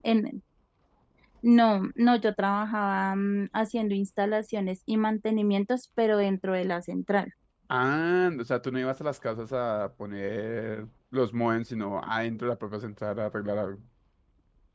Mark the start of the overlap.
none

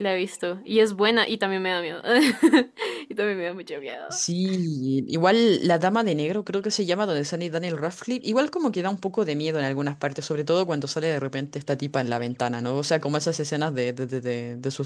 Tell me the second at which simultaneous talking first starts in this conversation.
none

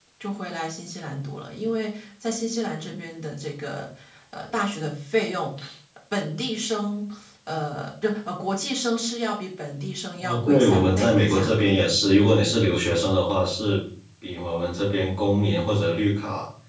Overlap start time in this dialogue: 10.2 s

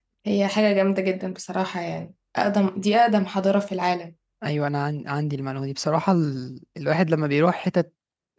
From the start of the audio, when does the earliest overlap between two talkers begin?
none

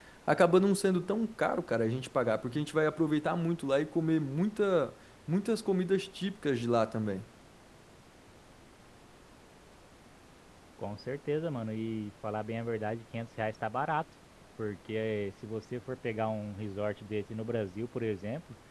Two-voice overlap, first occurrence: none

